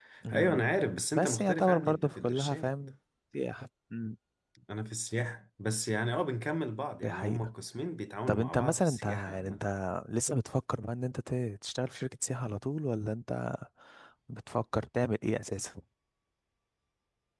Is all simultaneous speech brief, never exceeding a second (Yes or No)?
No